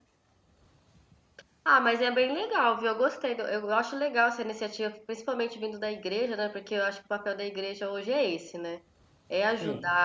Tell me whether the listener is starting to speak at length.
No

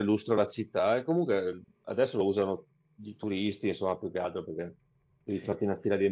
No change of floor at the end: Yes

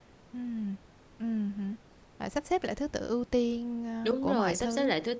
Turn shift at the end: Yes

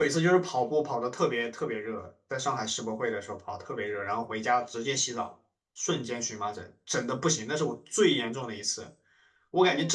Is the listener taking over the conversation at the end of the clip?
No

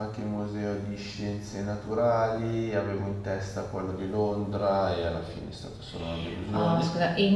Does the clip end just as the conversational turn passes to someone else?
Yes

